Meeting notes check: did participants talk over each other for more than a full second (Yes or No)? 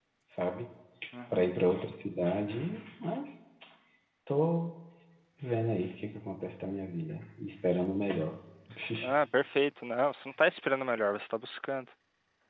No